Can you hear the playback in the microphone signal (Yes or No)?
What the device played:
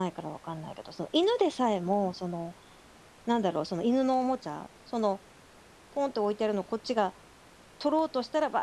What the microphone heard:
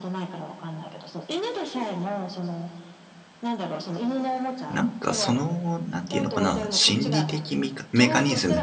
Yes